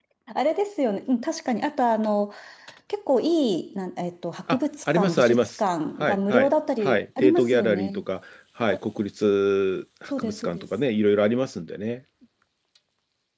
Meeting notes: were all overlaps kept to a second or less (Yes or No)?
No